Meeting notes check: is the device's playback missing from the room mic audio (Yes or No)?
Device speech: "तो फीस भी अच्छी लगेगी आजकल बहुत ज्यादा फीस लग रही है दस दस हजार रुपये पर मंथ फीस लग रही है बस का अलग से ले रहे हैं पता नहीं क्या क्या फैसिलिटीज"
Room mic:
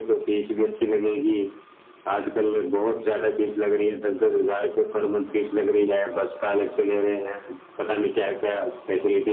No